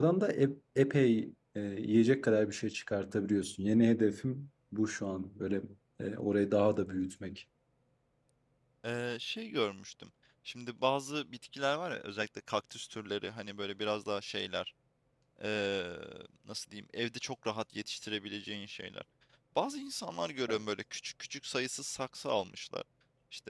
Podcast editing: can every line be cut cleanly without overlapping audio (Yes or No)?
Yes